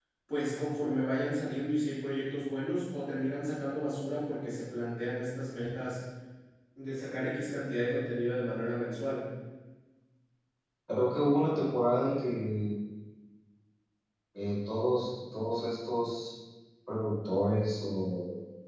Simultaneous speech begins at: none

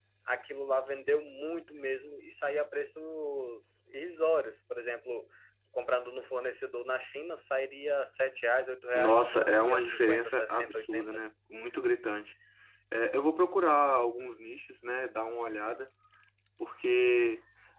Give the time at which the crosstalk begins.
8.9 s

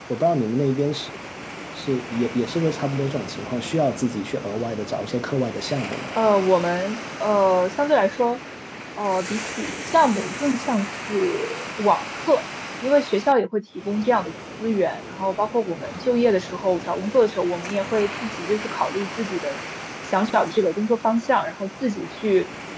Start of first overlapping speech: none

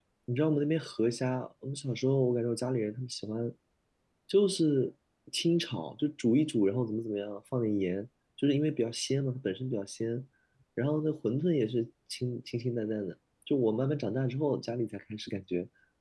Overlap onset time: none

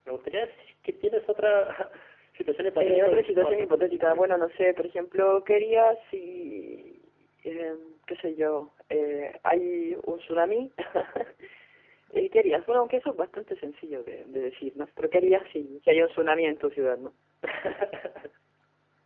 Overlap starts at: 2.8 s

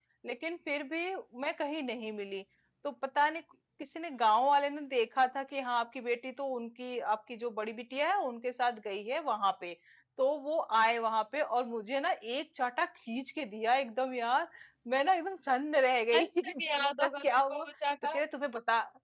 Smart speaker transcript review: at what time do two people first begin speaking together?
16.1 s

